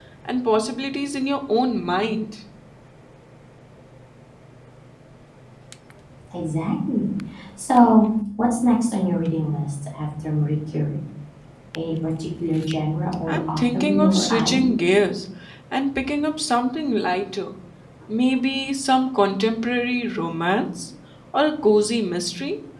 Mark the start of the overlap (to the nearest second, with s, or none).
13 s